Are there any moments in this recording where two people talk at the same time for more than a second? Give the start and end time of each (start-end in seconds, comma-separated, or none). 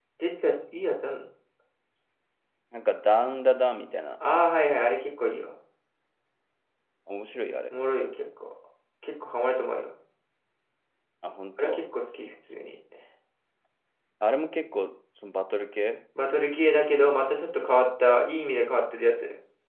none